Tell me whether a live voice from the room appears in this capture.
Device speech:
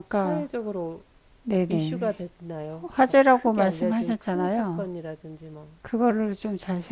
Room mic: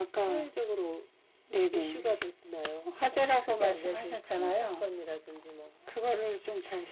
No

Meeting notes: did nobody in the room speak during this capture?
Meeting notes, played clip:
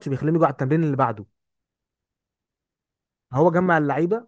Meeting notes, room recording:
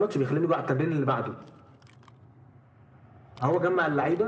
Yes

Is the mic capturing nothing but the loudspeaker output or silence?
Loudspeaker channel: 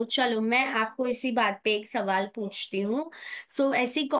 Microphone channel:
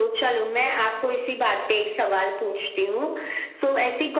Yes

